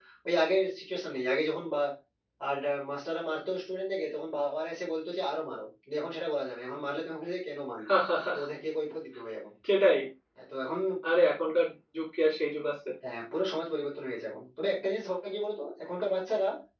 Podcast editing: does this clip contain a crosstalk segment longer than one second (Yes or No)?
No